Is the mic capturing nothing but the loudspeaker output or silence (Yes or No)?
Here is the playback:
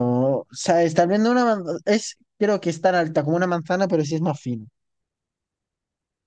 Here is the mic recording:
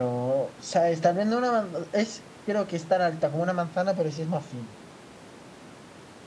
Yes